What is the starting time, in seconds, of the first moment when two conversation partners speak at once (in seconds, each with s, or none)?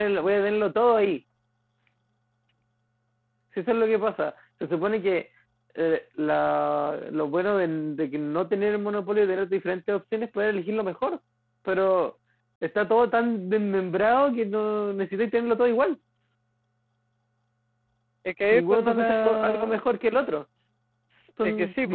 18.5 s